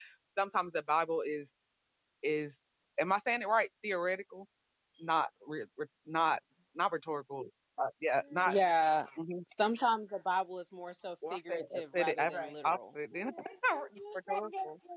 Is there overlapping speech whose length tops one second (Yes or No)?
Yes